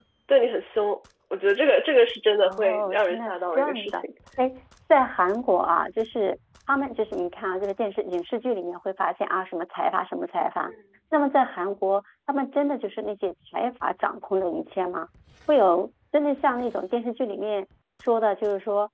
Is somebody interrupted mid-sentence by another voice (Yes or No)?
Yes